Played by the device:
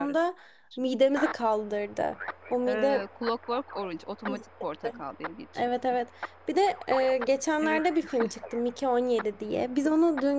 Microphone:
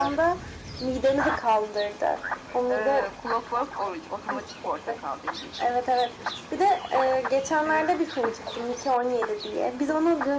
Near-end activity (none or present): none